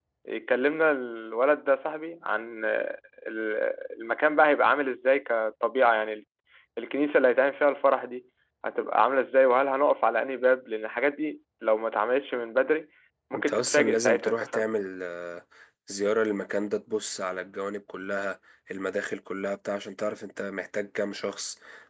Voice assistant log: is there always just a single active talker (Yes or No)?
No